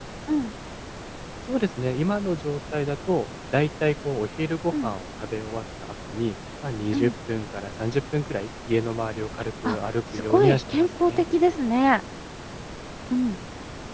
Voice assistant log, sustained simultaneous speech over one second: present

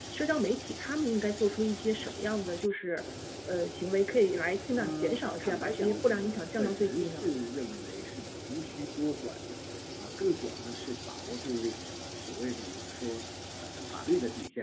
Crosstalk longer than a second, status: present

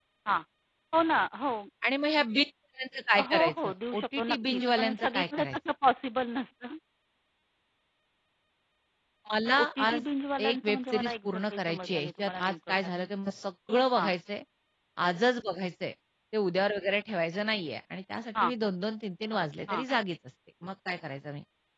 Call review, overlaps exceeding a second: present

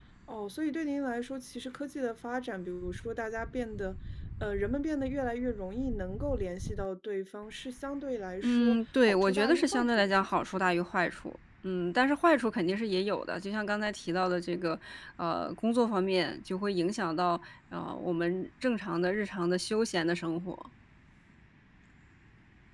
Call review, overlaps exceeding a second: present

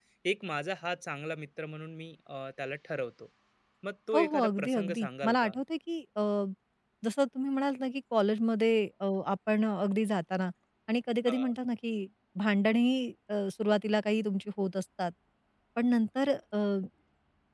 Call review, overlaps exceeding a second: present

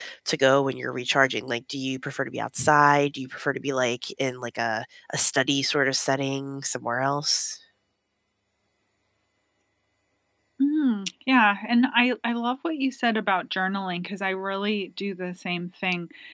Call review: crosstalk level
none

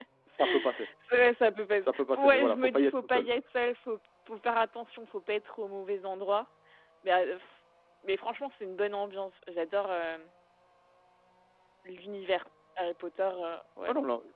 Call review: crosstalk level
present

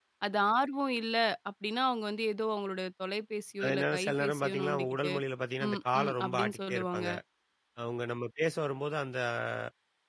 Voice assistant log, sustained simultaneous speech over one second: present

